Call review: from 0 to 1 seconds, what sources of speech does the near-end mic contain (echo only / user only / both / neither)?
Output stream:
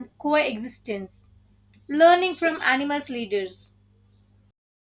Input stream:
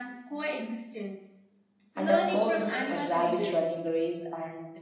echo only